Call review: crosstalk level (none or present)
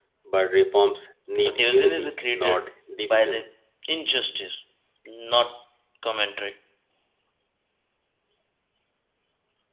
present